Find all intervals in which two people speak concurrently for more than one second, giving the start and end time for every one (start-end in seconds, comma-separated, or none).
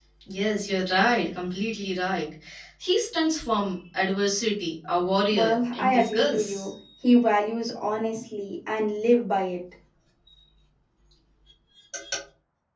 5.4-6.7